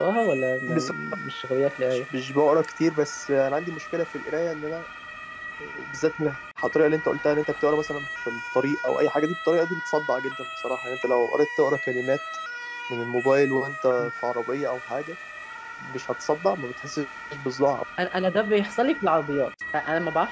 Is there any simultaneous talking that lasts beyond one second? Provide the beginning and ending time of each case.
none

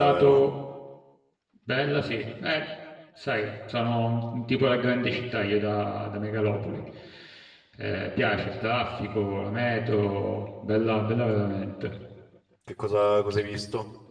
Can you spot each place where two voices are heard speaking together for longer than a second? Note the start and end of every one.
none

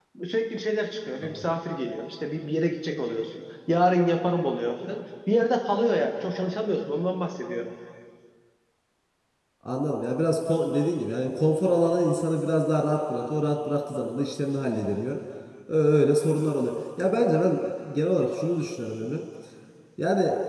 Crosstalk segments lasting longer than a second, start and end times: none

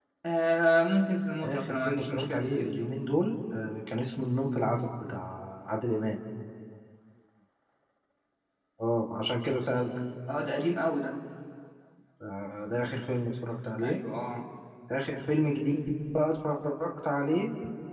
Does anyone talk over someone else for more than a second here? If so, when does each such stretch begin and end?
1.4-2.9

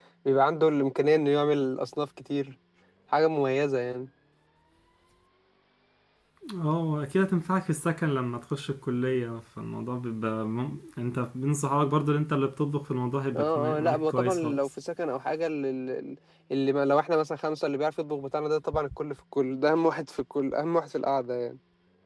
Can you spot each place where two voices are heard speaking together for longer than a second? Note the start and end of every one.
13.3-14.7

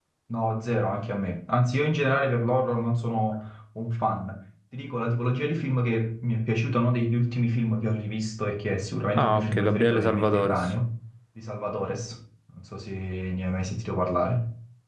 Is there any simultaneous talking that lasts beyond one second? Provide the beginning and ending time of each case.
9.2-10.6

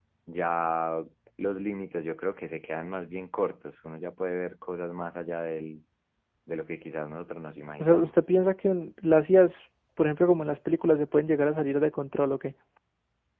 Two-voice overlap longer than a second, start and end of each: none

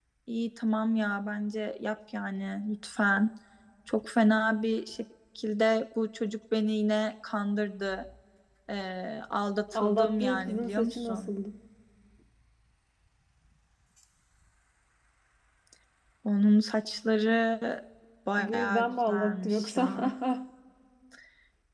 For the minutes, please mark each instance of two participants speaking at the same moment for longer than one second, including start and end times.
9.7-11.3, 18.4-19.9

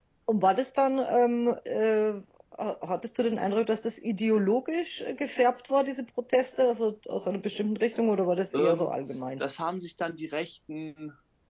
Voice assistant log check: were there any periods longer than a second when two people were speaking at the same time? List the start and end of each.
none

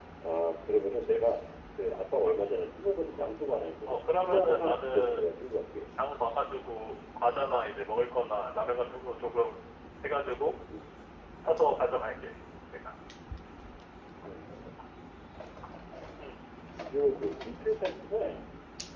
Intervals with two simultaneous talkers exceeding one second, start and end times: 3.9-5.2

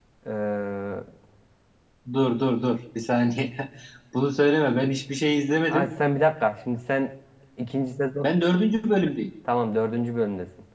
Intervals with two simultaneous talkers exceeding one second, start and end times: none

